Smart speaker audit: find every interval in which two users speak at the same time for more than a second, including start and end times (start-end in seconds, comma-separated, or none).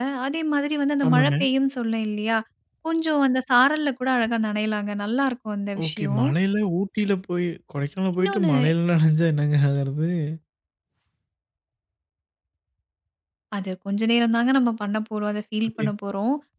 none